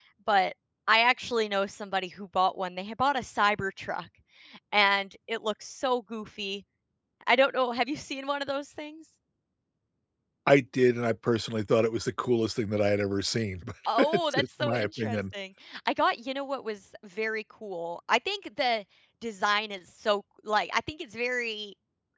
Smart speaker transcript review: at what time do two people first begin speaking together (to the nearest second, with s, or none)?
14 s